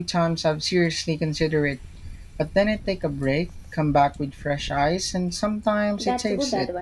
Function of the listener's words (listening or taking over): taking over